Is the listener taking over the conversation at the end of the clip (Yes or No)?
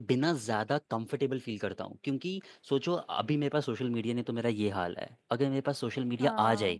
No